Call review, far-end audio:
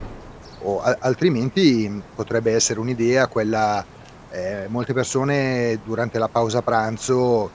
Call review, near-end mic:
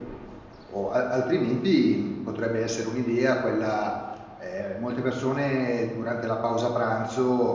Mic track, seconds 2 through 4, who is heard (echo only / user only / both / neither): echo only